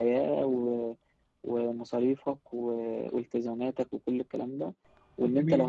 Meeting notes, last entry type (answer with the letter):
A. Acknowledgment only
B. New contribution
A